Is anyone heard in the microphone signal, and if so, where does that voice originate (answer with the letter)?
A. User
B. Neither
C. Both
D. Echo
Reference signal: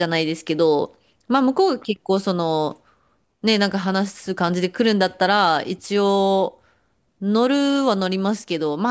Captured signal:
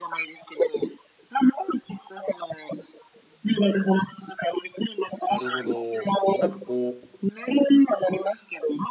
C